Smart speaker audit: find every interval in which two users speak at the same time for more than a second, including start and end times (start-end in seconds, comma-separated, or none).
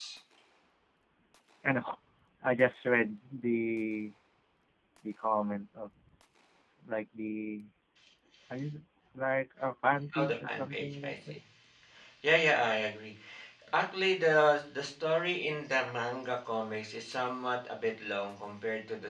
10.2-11.4